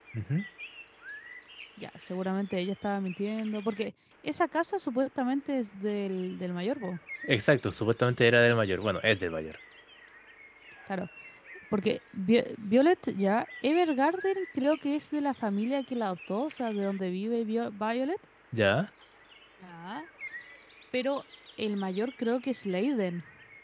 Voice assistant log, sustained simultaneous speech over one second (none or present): none